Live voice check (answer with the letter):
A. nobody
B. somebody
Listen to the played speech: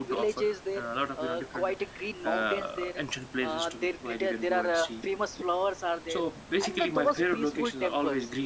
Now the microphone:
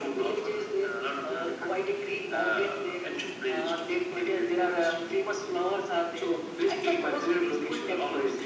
A